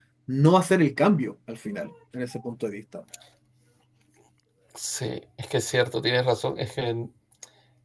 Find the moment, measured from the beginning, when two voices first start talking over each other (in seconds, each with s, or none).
none